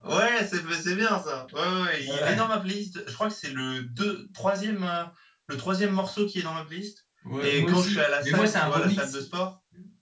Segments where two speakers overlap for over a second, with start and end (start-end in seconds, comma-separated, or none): 7.4-9.2